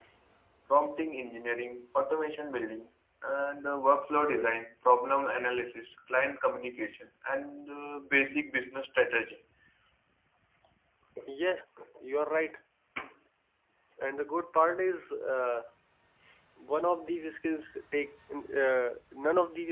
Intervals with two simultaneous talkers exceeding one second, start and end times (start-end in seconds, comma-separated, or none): none